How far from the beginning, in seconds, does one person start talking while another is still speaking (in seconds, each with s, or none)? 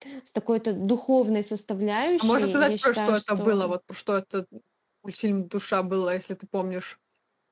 2.2 s